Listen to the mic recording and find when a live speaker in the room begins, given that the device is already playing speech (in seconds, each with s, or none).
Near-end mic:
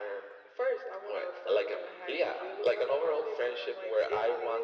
none